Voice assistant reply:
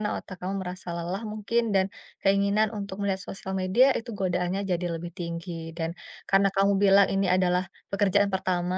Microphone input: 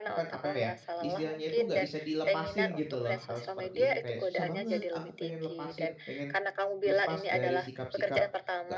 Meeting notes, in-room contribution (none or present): present